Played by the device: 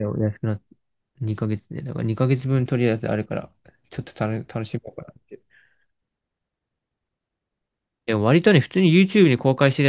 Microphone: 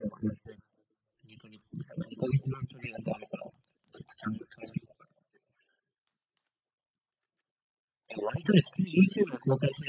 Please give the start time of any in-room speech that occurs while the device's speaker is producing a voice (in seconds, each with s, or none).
none